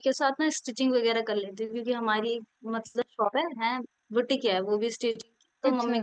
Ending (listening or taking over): listening